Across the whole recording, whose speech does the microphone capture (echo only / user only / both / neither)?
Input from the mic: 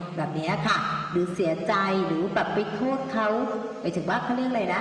echo only